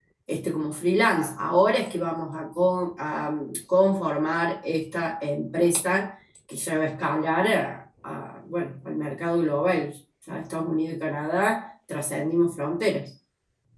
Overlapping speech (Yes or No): No